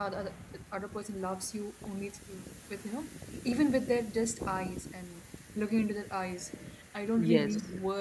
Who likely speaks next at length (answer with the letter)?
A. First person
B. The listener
A